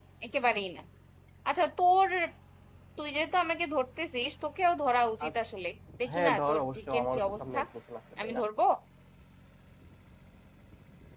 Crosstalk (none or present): present